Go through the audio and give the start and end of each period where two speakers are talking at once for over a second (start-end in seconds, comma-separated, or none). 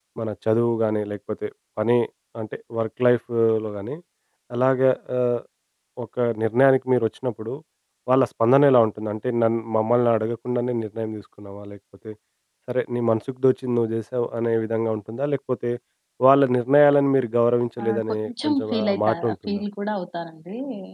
17.8-19.6